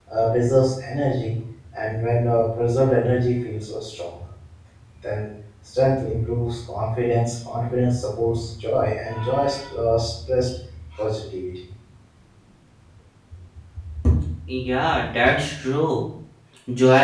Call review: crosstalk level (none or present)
none